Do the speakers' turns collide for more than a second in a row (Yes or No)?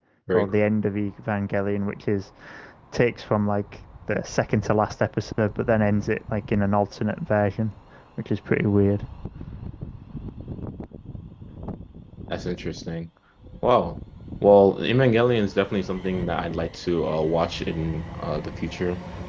No